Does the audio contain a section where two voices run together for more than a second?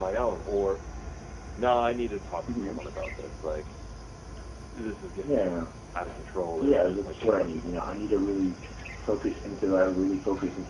Yes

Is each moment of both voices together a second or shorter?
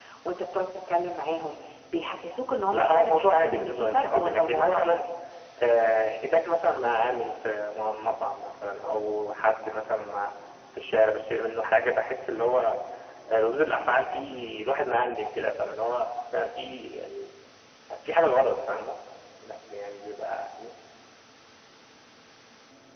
No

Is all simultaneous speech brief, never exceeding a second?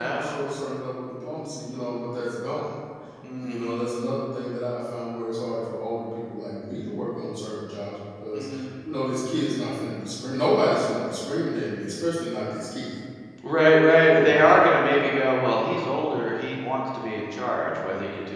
Yes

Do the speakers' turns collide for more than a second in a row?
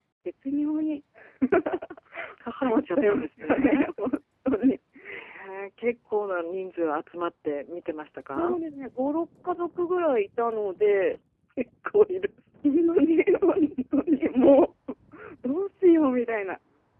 Yes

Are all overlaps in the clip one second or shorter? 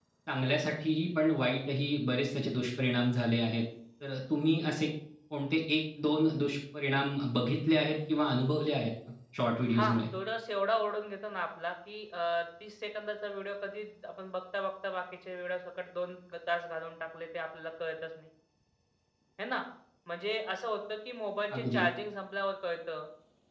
Yes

